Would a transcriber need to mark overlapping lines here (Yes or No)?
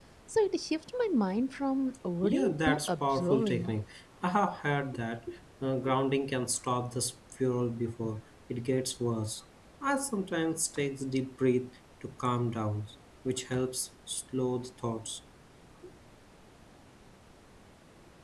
Yes